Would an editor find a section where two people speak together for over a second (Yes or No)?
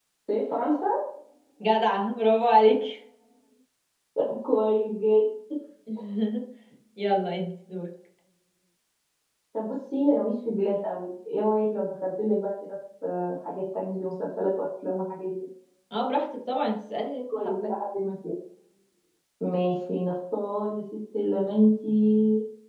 No